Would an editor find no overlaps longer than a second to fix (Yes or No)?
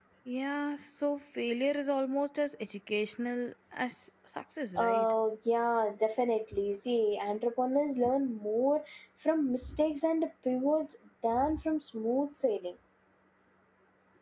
Yes